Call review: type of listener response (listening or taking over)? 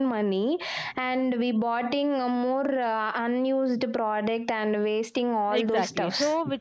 taking over